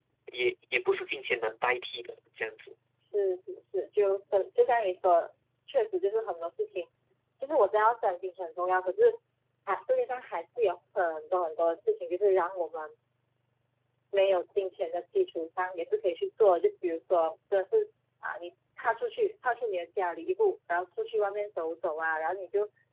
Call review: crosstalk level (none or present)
none